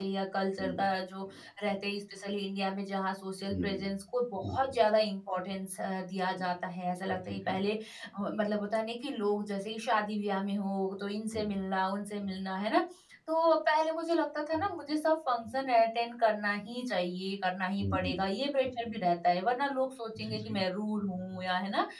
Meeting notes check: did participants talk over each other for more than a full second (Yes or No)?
No